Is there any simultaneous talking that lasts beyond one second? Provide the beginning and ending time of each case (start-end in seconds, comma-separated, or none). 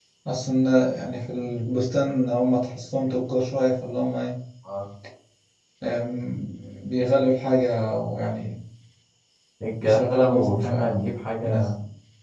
9.8-11.0